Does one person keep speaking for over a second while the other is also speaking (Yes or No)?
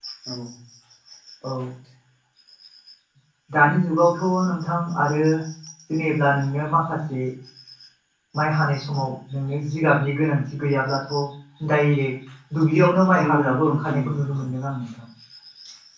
Yes